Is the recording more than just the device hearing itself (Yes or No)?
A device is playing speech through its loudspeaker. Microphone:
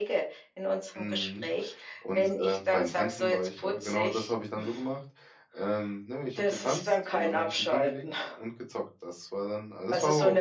Yes